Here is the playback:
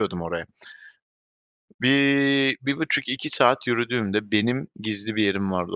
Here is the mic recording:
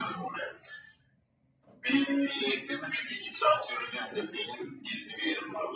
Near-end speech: none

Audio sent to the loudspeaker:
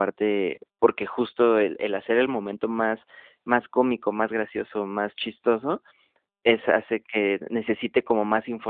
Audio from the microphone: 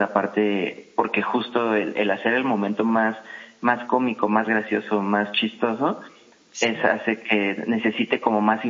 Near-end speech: present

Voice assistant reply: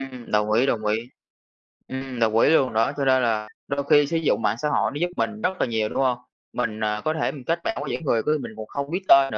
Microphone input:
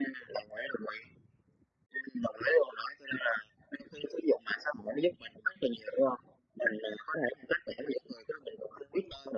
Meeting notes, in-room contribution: none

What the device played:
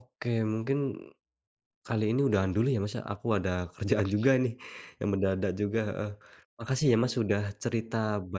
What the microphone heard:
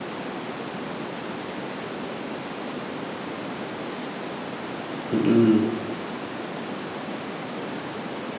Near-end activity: present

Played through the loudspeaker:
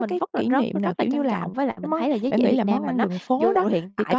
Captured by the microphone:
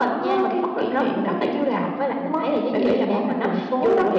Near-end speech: none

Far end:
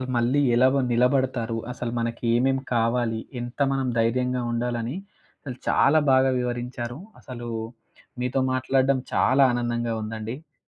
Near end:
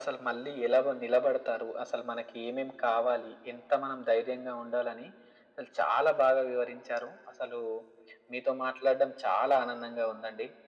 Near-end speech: none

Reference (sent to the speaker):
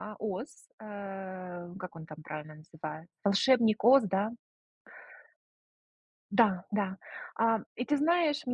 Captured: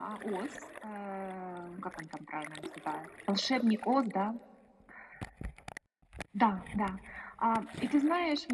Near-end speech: none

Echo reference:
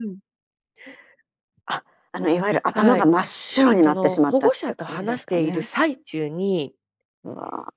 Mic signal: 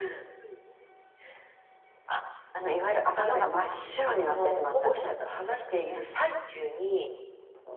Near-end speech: none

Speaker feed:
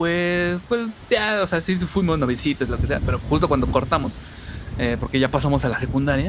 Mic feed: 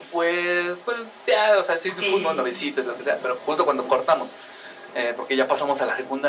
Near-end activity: present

